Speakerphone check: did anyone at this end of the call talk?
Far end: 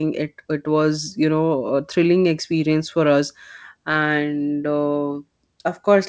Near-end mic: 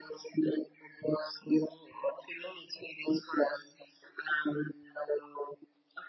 No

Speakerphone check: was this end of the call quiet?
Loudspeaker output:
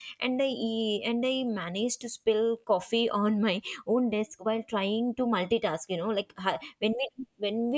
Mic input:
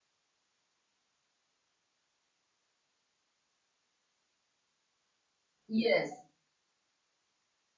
No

